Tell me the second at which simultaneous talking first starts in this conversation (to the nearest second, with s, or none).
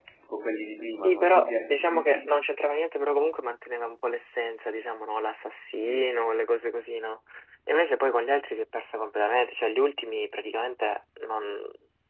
1 s